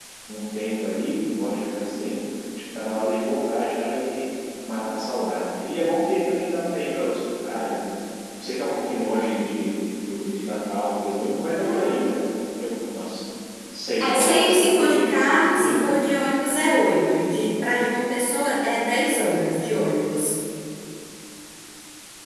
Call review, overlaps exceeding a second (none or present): present